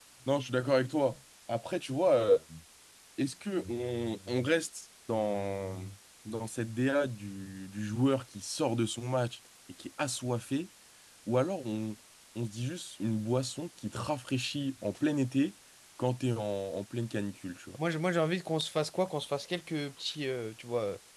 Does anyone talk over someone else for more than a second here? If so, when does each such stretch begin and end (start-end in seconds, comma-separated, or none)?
none